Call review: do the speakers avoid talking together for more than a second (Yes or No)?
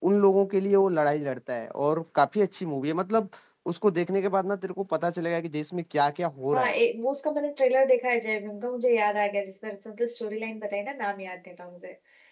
Yes